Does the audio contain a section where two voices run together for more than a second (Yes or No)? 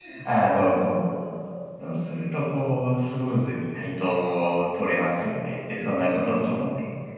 Yes